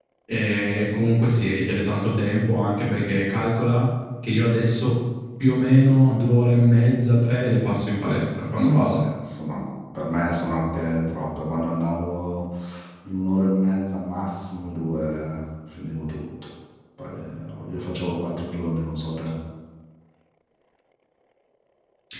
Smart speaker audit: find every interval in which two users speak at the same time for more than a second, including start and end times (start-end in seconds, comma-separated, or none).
none